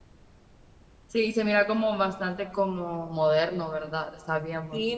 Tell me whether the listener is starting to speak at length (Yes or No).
Yes